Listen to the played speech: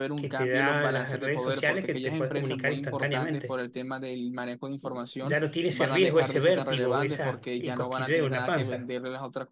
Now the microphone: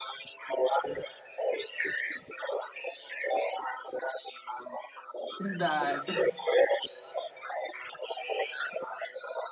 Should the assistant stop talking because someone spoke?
Yes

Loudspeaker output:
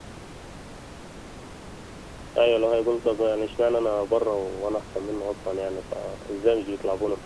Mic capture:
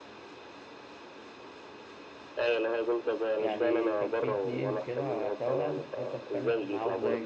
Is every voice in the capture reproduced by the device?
No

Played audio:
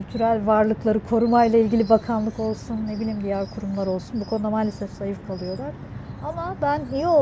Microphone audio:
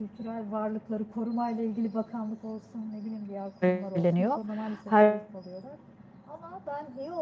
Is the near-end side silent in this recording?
No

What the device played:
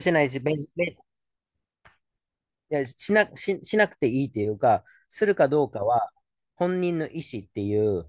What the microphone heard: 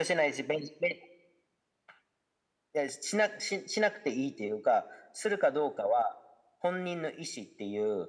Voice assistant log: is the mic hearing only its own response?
Yes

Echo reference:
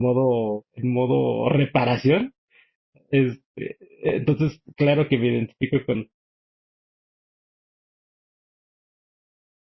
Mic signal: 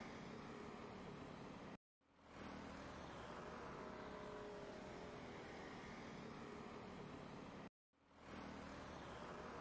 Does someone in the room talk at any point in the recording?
No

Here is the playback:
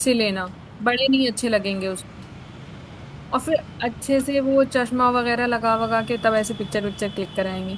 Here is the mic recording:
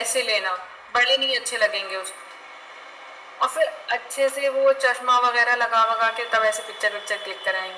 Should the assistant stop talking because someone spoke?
No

